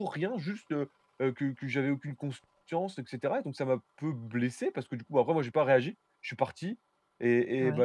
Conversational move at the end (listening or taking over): listening